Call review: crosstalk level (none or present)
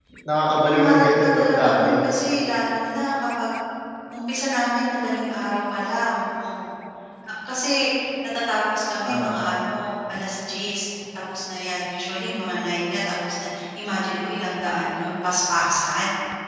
present